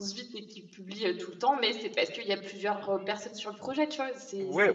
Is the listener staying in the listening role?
No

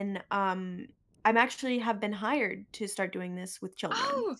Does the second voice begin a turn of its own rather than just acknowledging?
Yes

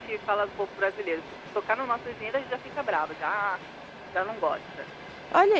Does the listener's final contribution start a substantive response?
Yes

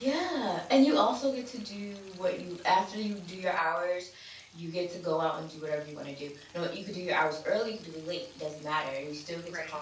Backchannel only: Yes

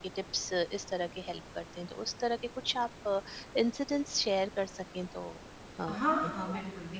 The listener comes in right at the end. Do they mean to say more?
Yes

